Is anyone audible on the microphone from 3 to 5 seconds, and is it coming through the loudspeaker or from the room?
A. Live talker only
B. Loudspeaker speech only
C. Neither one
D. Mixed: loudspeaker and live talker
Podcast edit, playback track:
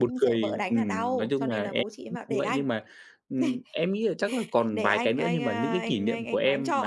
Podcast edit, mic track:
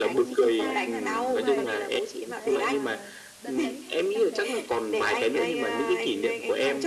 D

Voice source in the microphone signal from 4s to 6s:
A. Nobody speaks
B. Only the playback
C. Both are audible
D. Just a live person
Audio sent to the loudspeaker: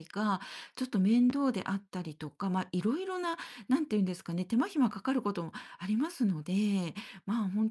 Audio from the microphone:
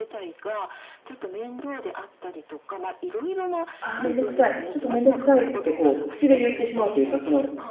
C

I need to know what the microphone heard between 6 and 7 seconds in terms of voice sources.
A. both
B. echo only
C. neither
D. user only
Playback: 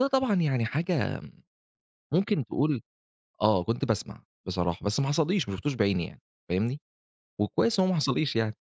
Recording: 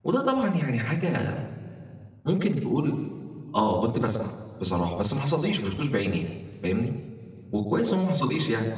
B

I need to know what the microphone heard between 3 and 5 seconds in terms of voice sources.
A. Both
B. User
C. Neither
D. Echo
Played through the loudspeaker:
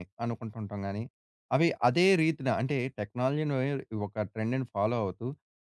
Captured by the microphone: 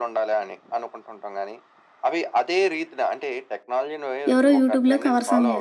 A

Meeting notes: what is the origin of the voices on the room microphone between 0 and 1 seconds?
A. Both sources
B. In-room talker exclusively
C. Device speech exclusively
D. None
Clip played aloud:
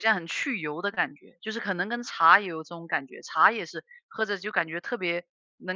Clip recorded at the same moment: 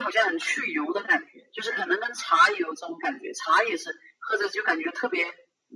C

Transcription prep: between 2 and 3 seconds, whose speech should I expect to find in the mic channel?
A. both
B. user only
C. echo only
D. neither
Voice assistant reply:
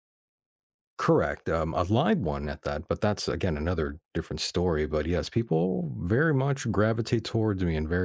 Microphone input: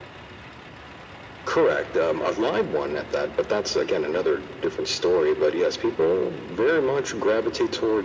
C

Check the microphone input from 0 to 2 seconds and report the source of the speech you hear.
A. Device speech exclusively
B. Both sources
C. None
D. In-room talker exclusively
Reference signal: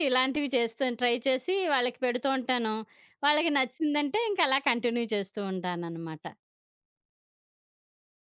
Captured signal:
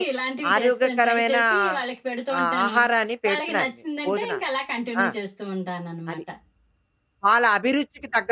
B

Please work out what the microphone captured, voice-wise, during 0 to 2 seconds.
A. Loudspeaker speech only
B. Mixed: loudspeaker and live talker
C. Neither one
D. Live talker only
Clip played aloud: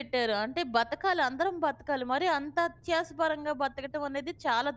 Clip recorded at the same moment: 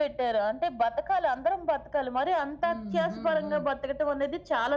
A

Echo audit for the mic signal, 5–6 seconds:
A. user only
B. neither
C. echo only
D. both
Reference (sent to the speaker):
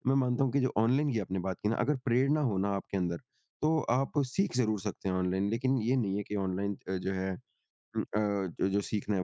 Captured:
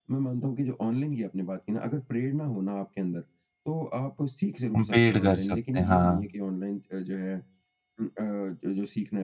D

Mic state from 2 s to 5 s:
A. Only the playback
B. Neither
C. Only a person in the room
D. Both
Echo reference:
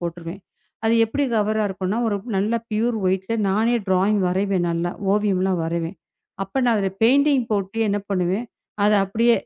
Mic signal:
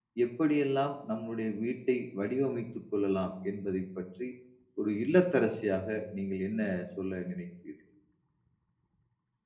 C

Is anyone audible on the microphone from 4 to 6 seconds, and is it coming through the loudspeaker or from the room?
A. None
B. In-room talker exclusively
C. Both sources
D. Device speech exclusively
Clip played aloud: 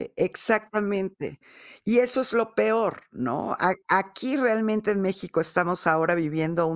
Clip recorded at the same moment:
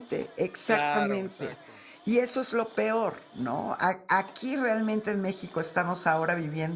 D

